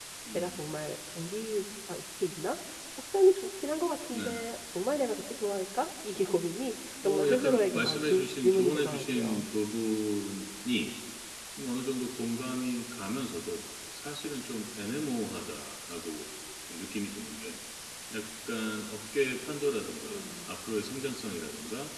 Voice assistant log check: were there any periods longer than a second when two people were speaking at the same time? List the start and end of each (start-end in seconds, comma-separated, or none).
7.0-9.5